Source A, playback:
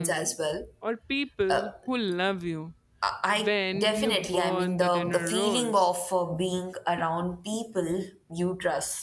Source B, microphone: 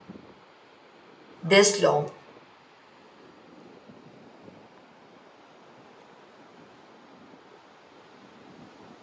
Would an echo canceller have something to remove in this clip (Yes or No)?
No